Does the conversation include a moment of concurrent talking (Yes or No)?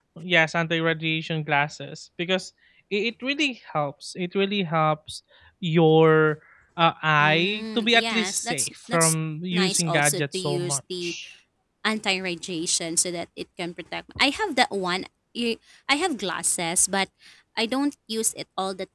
Yes